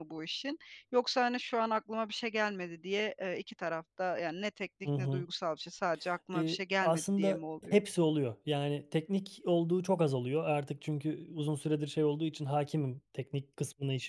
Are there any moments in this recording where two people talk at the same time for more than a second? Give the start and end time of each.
6.3-7.8

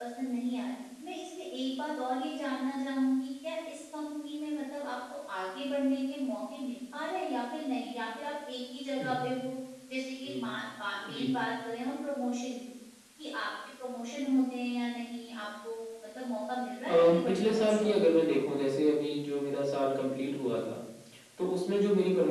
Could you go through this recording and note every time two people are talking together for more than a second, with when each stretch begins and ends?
16.9-18.2

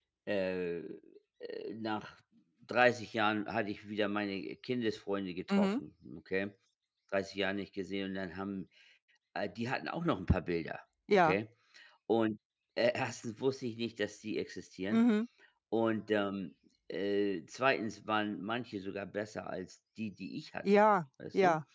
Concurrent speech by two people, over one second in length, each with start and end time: none

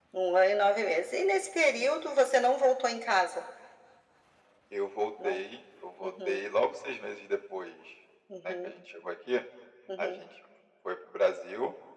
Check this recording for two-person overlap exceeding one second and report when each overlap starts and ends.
none

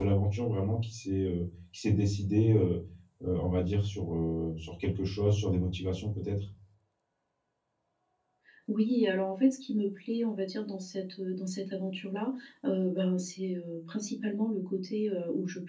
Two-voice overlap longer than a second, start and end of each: none

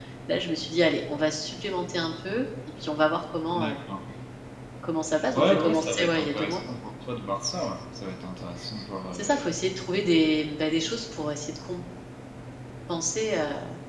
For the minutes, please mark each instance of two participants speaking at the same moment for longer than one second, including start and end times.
5.3-6.6

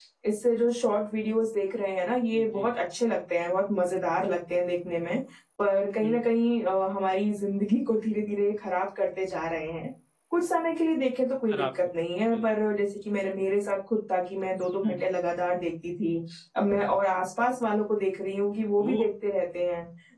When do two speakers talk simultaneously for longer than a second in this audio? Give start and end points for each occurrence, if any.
none

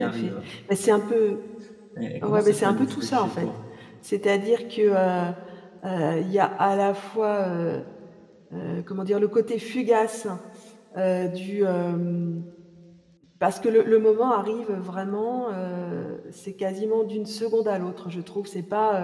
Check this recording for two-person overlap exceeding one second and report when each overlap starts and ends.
2.2-3.5

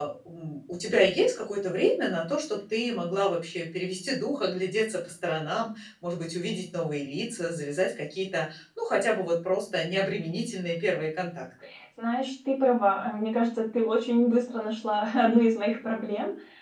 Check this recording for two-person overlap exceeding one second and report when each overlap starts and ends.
none

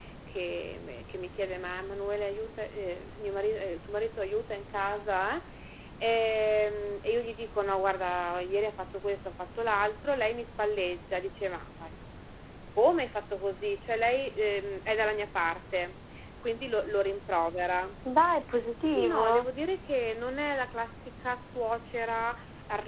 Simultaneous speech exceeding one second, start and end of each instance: none

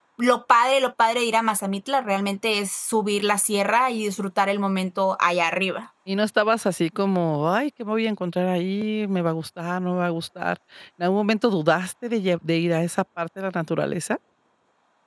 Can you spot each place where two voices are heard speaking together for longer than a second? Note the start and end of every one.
none

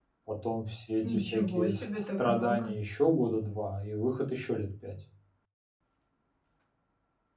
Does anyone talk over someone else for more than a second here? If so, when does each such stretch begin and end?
1.0-2.7

